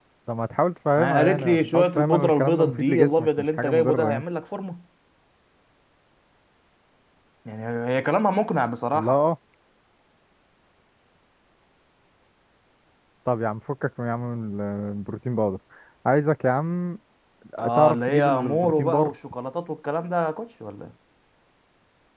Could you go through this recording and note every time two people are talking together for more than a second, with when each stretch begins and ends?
1.0-4.2, 17.7-19.1

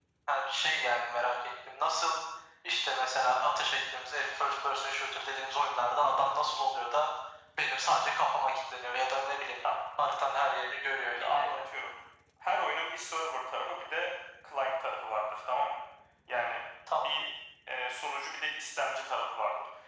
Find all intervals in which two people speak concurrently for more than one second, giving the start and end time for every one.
none

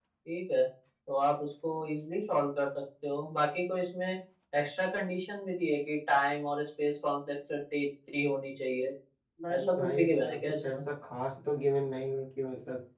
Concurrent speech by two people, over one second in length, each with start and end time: 9.6-10.8

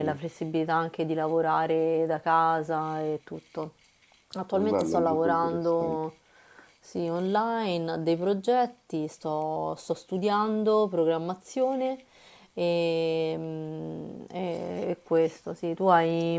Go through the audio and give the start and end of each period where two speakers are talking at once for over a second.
4.5-6.0

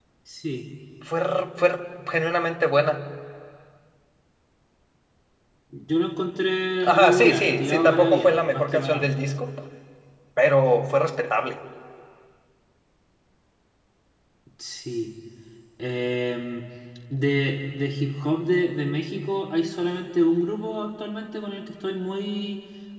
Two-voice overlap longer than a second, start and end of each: 6.8-9.1

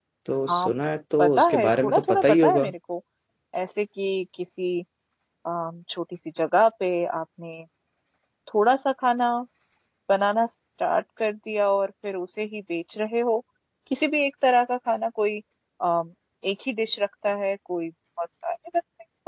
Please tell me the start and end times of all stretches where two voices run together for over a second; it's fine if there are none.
1.2-2.7

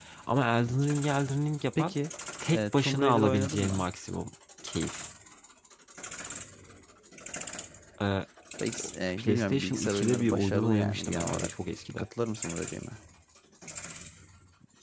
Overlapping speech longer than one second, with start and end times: 2.5-3.8, 9.2-11.5

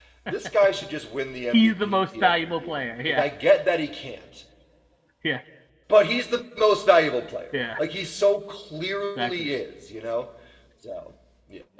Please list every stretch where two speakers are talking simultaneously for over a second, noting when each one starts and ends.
1.5-3.2

